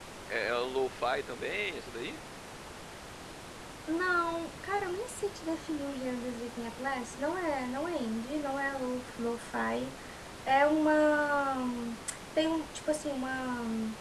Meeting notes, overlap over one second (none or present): none